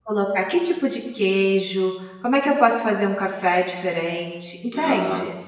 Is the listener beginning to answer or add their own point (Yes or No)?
No